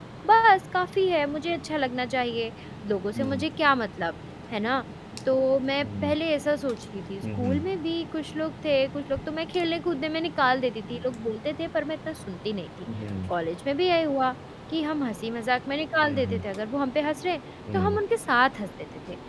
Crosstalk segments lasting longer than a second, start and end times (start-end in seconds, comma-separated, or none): none